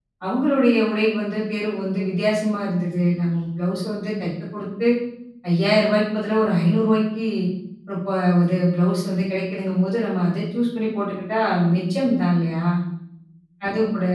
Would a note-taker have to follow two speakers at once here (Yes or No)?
No